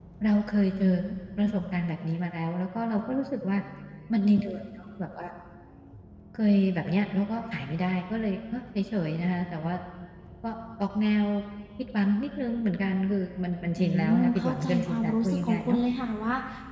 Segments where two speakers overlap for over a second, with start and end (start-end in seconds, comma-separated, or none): 13.8-15.8